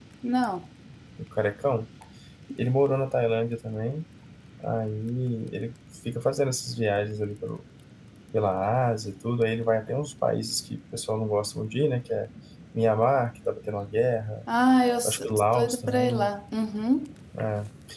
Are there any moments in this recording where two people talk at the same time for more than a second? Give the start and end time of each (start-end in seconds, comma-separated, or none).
15.1-16.3